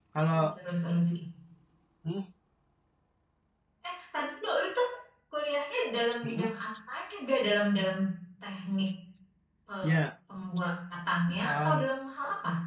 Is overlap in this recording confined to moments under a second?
Yes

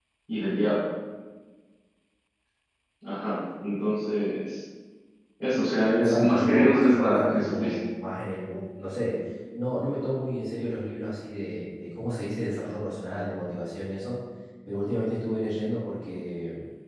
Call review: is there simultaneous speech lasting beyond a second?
Yes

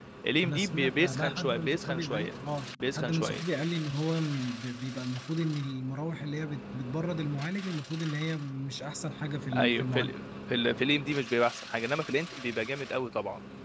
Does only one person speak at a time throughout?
No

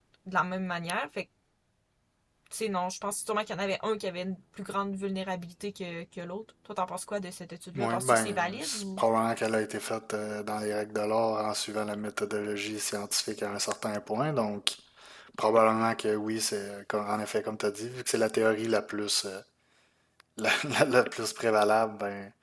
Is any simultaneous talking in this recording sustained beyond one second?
Yes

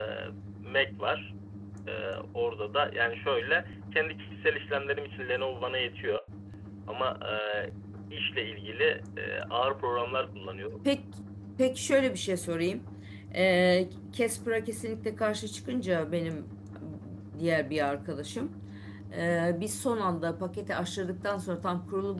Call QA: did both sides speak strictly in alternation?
Yes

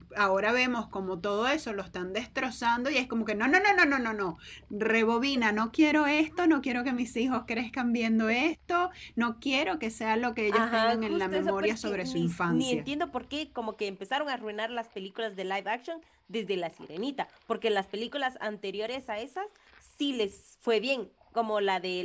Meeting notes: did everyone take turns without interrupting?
No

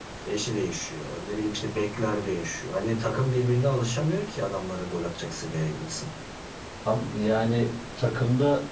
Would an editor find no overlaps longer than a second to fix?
Yes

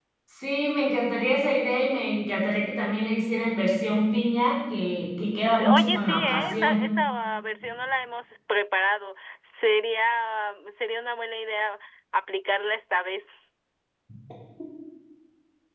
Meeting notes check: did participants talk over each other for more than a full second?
Yes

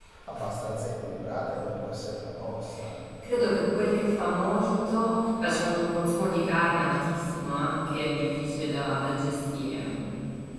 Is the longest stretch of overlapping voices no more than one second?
Yes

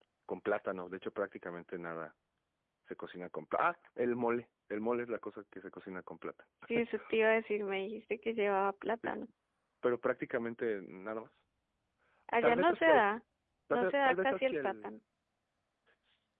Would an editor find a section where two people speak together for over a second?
Yes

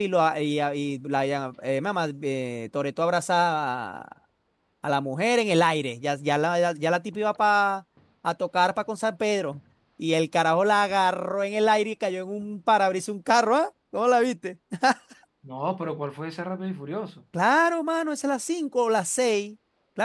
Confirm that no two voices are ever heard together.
Yes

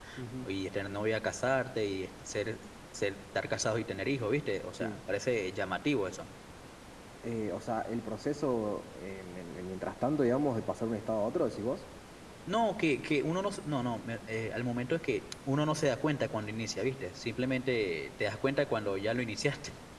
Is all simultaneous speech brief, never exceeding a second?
Yes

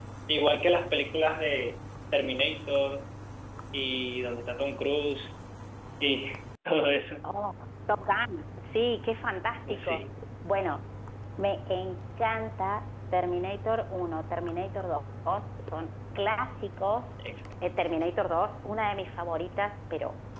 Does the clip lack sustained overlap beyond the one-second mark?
Yes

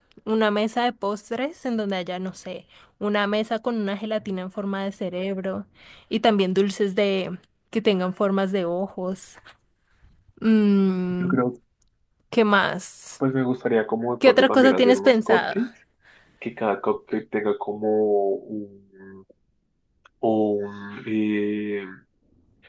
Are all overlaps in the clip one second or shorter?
No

